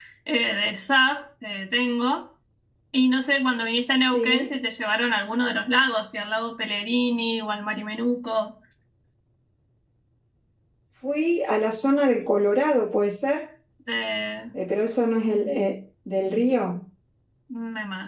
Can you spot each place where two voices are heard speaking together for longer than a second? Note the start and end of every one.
none

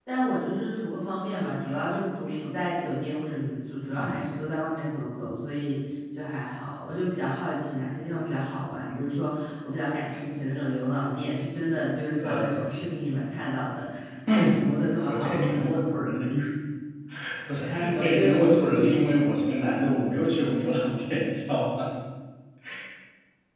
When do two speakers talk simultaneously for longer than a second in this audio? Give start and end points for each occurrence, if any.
17.6-19.0

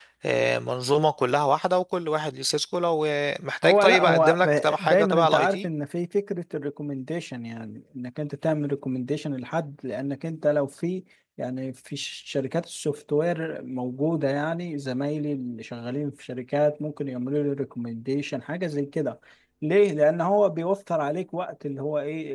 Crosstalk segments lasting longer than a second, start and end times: 3.6-5.7

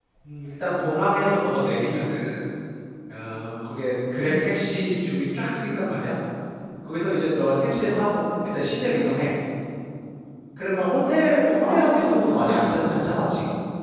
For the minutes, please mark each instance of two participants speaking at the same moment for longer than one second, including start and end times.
11.5-13.1

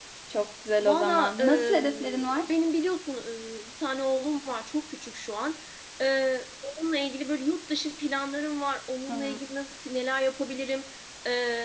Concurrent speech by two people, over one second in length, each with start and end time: 0.8-2.5

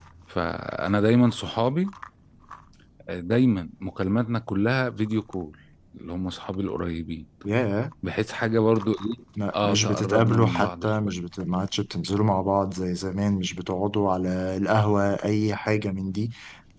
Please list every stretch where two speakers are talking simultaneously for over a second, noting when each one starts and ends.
9.6-11.1

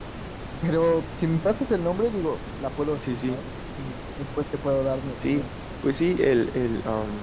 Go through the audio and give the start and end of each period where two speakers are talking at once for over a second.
none

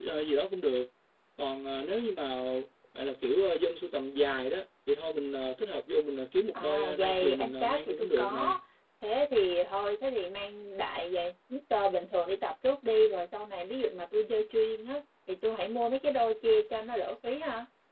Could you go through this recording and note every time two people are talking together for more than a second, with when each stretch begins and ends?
6.5-8.5

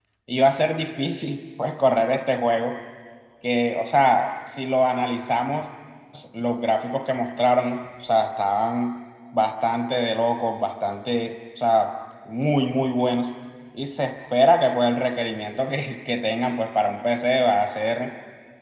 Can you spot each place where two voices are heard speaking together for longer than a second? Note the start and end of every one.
none

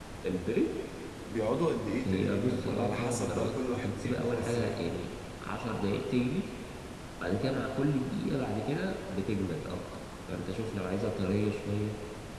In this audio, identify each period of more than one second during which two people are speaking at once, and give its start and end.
2.0-4.8

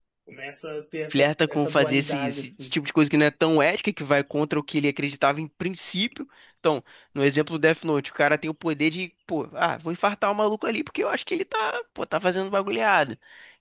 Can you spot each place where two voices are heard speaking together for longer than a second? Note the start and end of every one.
1.1-2.7

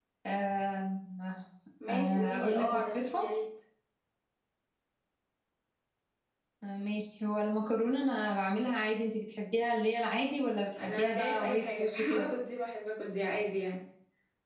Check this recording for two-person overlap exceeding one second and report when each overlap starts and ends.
1.9-3.2, 10.8-12.3

